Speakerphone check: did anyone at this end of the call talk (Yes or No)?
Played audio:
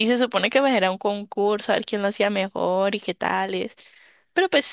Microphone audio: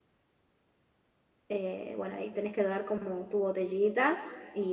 Yes